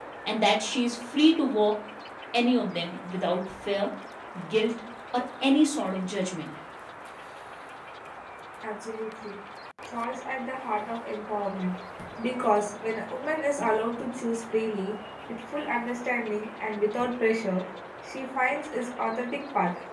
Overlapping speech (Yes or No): No